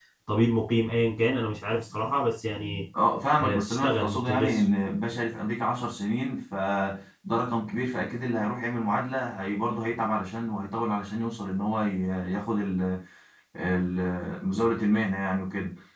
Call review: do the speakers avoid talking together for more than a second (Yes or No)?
No